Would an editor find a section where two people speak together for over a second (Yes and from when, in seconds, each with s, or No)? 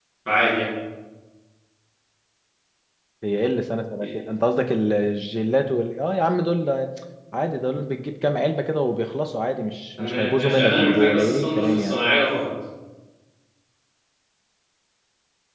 Yes, from 10.0 s